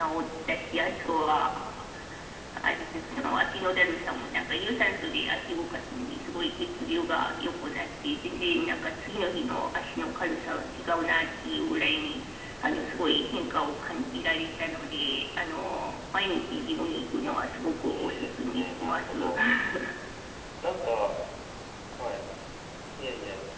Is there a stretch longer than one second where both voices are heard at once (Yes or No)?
Yes